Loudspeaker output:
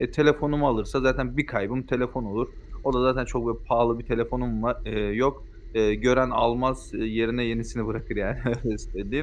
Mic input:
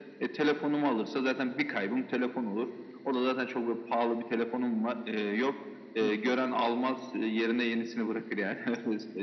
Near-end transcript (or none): Hı hı.